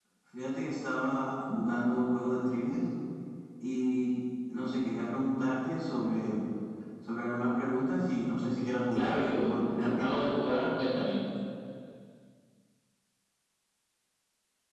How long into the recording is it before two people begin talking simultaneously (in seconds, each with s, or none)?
8.9 s